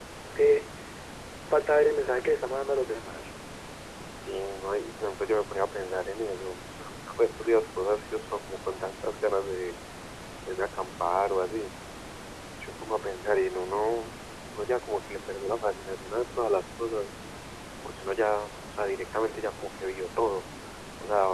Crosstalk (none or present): none